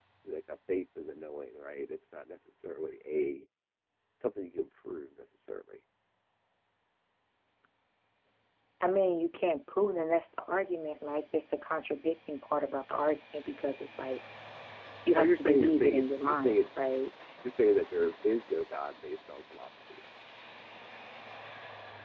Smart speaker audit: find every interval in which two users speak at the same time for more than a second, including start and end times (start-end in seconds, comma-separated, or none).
15.2-16.6